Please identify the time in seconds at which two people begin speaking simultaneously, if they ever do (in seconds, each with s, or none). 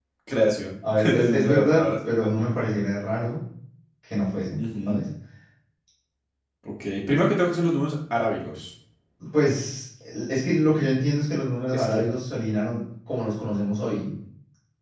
1.0 s